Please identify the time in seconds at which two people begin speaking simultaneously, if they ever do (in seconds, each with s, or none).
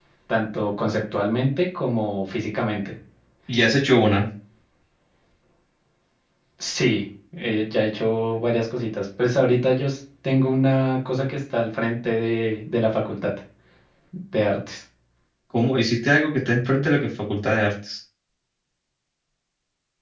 none